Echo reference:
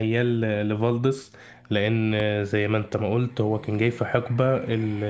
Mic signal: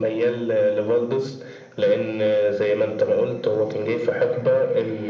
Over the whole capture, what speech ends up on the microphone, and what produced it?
echo only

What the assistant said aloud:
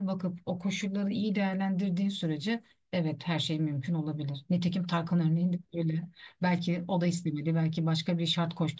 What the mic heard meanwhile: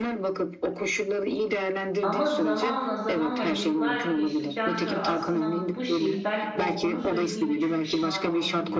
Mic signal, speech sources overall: both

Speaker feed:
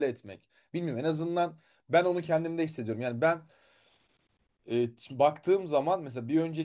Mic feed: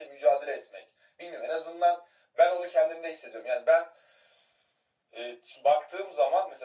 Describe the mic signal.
echo only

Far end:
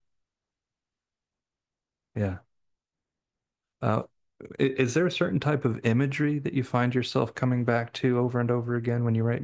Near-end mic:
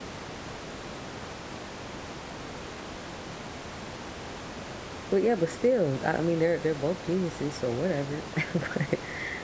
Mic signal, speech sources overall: user only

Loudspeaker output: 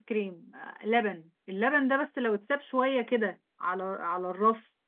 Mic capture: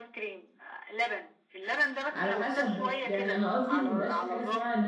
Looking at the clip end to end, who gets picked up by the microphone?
both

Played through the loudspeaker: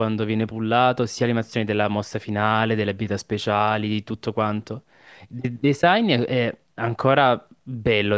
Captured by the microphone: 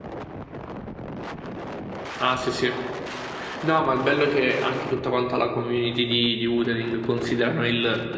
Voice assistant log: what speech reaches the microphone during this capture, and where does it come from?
user only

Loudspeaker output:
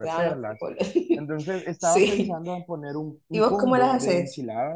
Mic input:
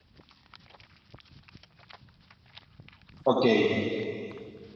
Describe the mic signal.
user only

